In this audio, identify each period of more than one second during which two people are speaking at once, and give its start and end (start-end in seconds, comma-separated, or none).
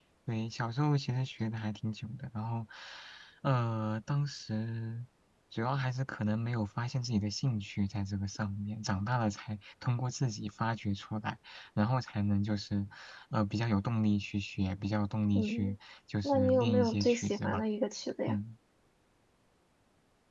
16.2-17.6